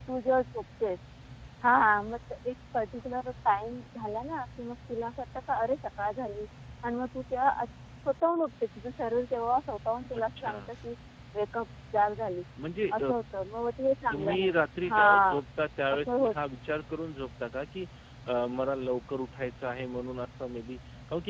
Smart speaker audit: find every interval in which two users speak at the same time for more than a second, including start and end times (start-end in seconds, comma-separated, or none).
14.1-15.4